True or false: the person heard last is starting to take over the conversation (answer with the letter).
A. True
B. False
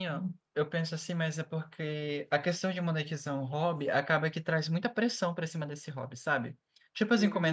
B